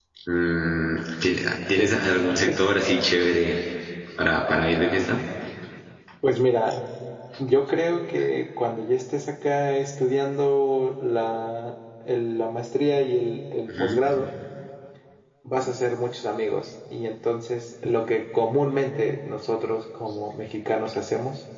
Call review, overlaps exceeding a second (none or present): none